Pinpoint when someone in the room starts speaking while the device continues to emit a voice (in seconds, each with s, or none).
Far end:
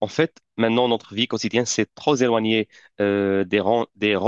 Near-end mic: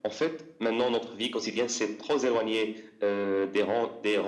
none